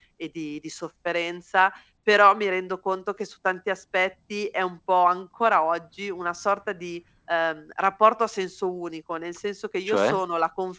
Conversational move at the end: listening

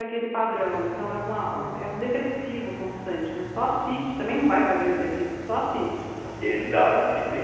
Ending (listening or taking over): taking over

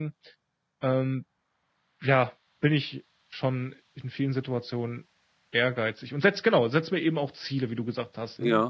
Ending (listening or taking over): taking over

